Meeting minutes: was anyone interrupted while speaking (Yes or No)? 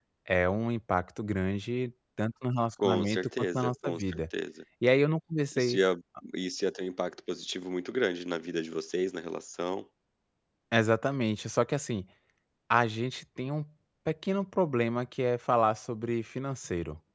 Yes